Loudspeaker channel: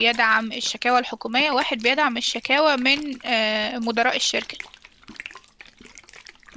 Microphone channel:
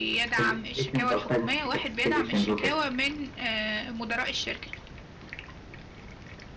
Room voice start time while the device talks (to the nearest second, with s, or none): 0 s